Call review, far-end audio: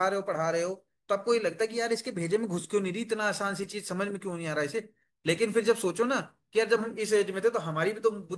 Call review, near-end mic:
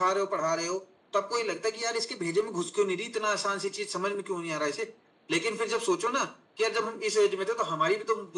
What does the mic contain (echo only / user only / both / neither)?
echo only